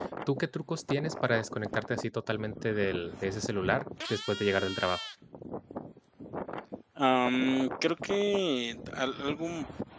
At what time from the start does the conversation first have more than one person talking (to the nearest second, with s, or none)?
none